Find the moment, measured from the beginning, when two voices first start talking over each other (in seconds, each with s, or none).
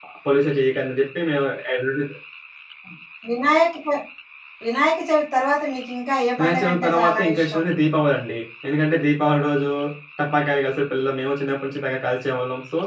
6.4 s